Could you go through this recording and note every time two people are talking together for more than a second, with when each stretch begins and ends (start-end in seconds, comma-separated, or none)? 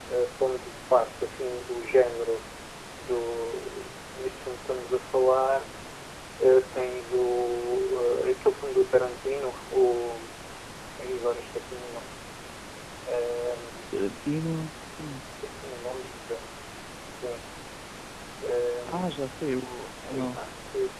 none